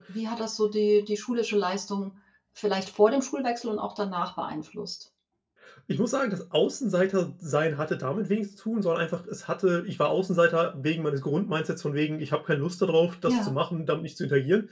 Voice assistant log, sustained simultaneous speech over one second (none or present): none